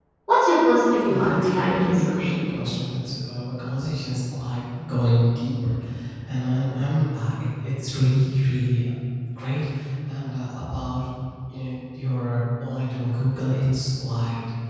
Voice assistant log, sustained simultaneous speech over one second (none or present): present